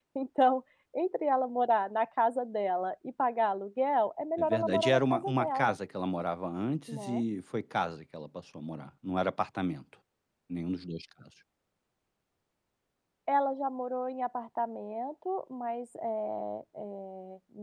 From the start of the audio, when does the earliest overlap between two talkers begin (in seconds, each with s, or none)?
4.4 s